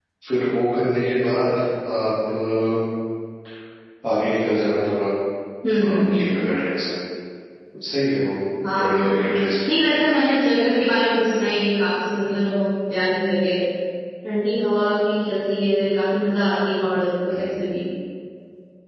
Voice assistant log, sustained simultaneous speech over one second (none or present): present